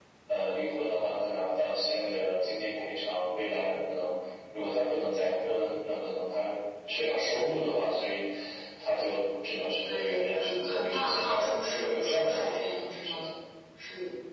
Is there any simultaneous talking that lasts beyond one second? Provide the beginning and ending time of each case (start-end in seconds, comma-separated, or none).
9.8-13.3